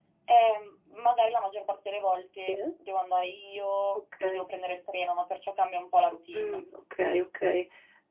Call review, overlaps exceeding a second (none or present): none